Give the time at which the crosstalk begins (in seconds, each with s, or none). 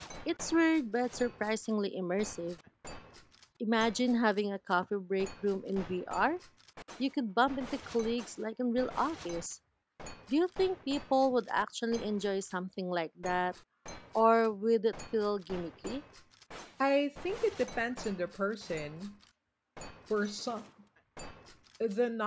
none